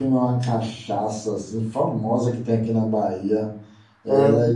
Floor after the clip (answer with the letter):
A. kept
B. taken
A